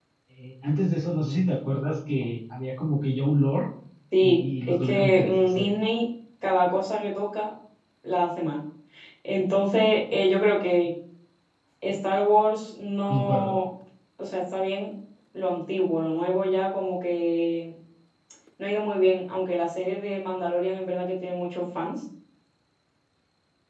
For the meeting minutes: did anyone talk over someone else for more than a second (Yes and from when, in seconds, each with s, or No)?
Yes, from 4.2 s